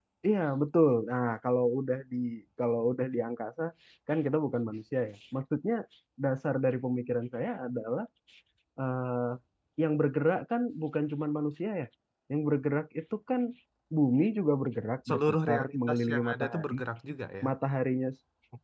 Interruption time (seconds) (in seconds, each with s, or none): 15.1 s